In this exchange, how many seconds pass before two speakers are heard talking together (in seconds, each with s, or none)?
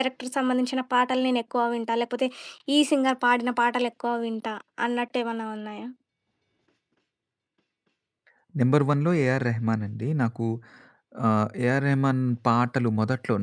none